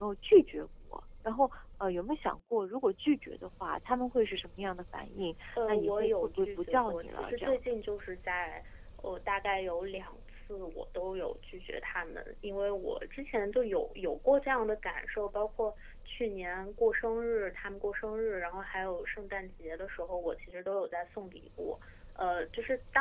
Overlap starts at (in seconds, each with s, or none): 5.5 s